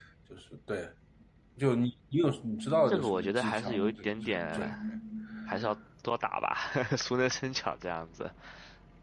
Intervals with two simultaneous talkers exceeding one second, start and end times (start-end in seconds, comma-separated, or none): 2.9-4.8